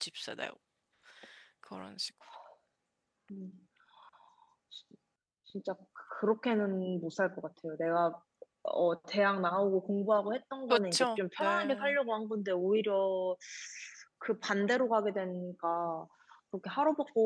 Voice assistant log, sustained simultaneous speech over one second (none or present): present